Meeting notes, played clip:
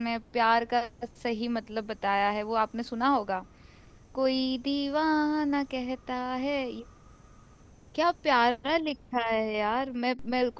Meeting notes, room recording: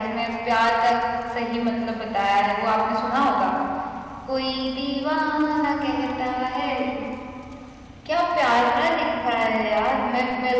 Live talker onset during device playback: none

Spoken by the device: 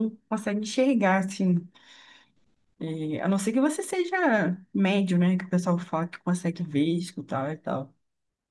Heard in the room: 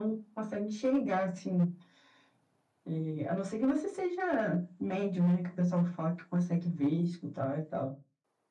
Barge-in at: none

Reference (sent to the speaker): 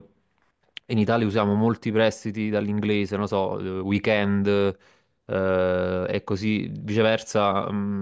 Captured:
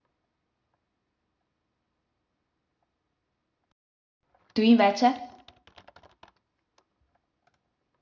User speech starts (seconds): 4.5 s

